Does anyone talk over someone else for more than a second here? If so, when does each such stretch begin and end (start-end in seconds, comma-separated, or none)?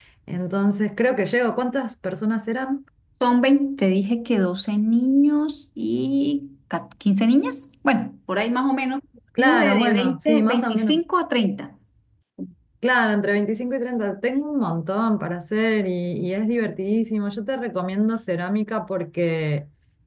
9.4-11.0